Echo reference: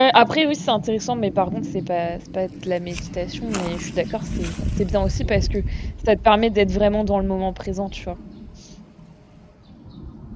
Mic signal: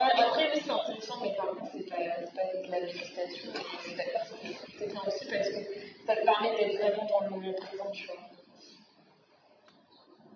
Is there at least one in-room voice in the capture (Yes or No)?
No